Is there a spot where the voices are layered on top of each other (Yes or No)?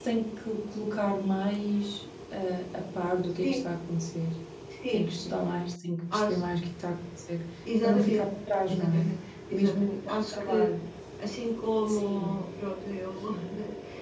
Yes